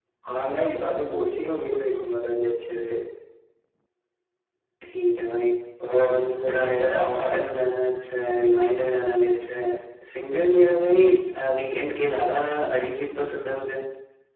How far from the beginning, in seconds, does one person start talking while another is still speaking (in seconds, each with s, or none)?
5.9 s